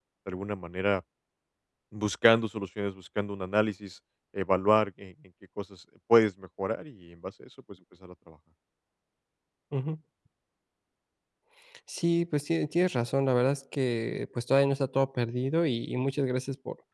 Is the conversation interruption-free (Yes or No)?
Yes